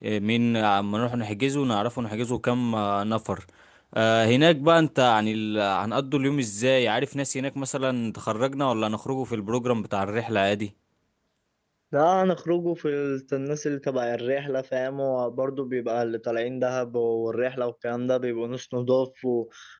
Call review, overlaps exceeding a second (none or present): none